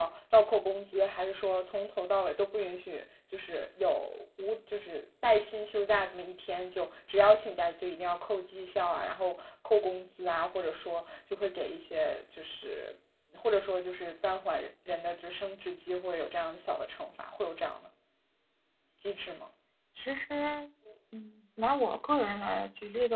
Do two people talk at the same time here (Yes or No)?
No